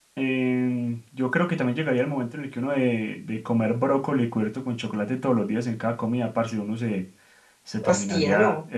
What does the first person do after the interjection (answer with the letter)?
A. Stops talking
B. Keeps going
B